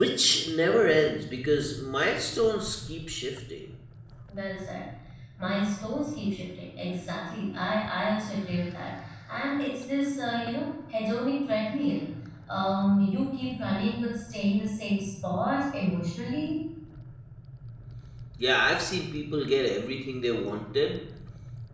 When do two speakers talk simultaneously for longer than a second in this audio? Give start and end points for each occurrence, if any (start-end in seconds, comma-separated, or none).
none